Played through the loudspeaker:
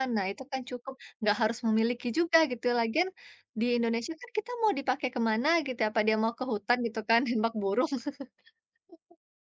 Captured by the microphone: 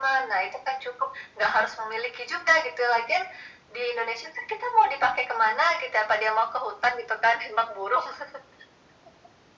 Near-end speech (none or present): none